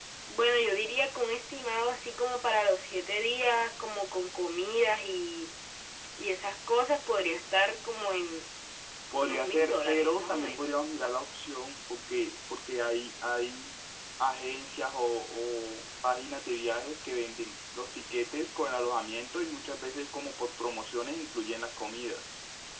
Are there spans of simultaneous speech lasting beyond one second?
Yes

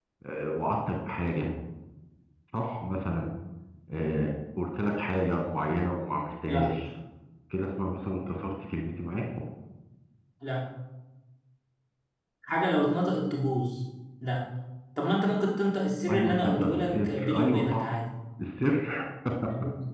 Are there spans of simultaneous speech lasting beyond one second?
Yes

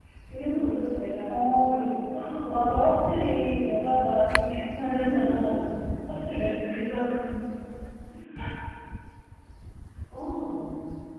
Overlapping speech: Yes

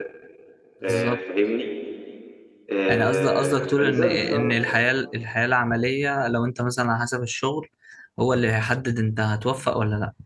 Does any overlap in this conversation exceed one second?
Yes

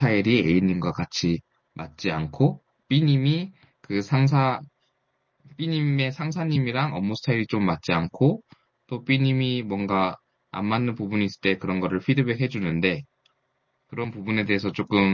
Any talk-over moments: No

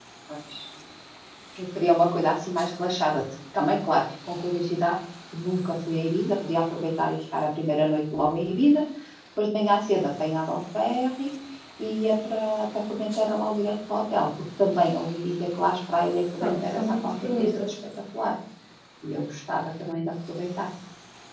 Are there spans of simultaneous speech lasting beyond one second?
Yes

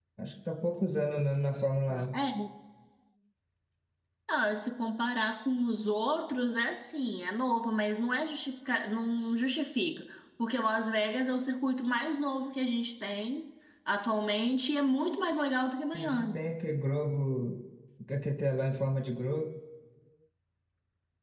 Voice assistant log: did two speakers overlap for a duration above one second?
No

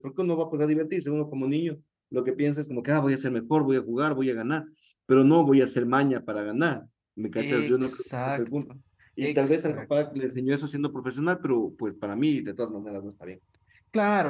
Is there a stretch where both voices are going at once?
Yes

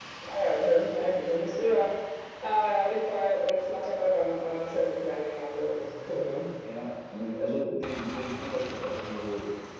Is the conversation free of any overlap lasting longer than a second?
Yes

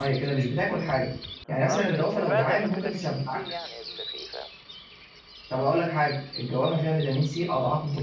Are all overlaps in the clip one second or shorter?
No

